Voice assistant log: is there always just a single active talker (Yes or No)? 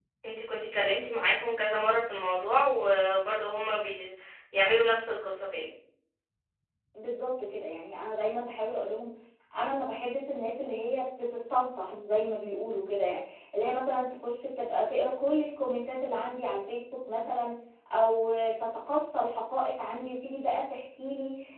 Yes